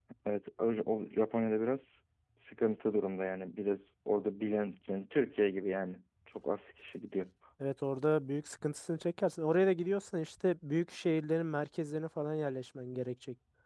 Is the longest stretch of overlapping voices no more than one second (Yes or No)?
Yes